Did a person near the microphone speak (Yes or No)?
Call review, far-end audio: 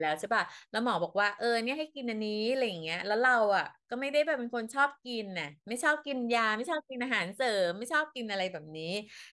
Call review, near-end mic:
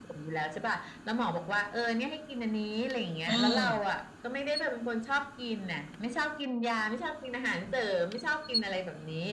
Yes